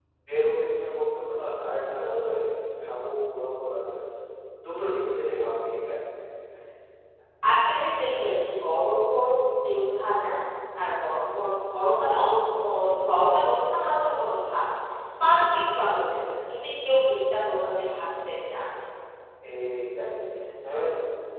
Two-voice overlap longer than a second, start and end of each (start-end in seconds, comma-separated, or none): none